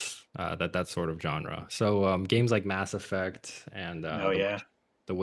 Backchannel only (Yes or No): Yes